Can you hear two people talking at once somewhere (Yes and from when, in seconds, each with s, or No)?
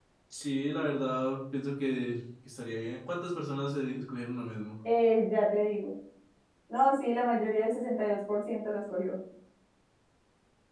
No